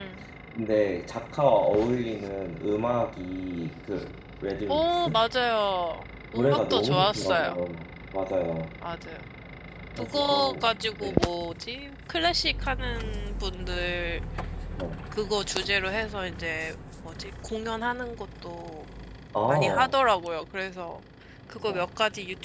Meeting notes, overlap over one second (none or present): present